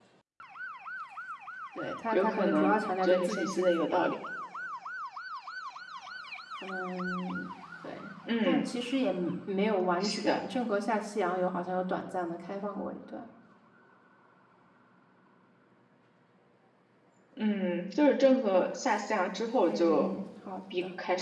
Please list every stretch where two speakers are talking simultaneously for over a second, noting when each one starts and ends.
2.1-4.0

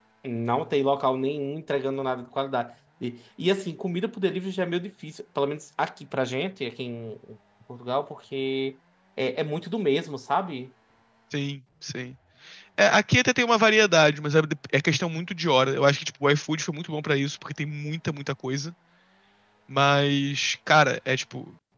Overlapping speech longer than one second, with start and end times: none

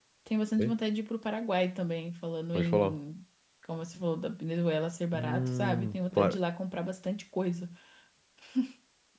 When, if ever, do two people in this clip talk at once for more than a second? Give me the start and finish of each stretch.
5.1-6.4

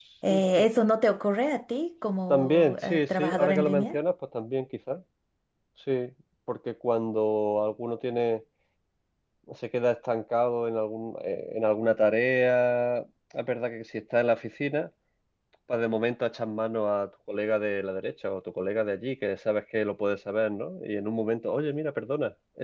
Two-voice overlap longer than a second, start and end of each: 2.3-4.0

